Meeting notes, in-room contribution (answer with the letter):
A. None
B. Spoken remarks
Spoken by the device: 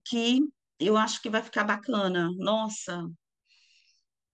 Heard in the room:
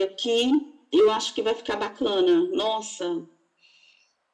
A